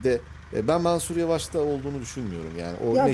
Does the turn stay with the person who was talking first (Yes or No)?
No